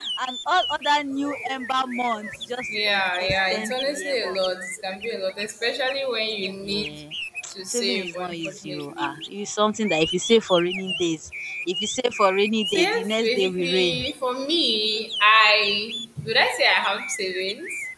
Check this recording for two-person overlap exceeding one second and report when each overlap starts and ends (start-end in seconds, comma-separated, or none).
2.8-4.4, 7.7-9.1, 12.7-14.1